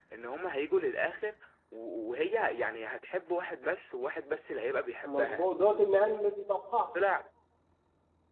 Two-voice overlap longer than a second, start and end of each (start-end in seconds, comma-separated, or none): none